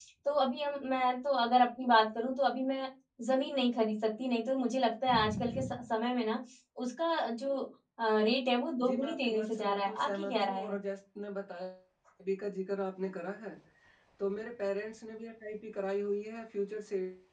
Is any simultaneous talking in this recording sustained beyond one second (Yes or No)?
Yes